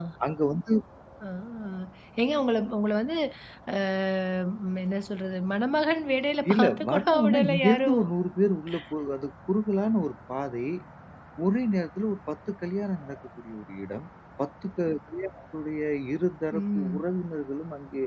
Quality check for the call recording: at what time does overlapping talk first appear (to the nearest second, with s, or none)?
7 s